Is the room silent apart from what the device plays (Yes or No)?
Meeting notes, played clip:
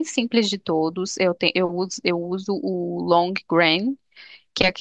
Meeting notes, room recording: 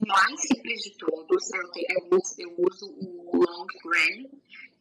Yes